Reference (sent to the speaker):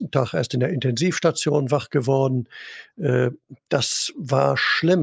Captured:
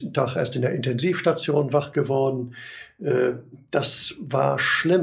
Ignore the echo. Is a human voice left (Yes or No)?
No